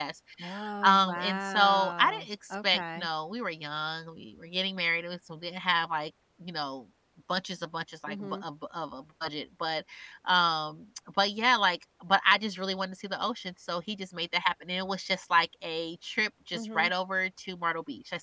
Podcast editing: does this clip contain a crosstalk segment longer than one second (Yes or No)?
Yes